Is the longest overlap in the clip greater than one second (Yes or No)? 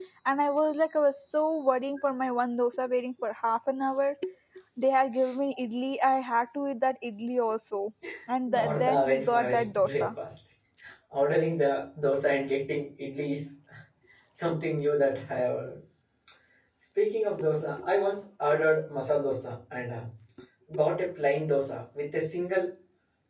Yes